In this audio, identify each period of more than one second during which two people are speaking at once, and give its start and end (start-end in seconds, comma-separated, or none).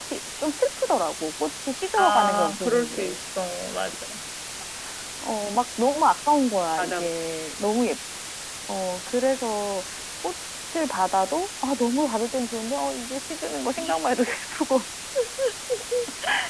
2.0-3.2